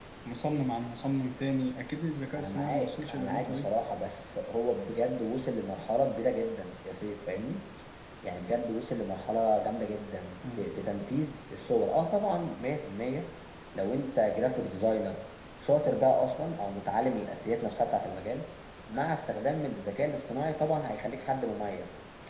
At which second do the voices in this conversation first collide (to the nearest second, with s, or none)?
2 s